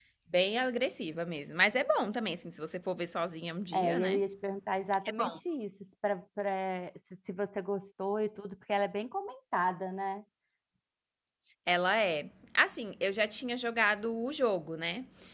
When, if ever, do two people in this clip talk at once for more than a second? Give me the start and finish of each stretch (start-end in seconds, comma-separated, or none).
none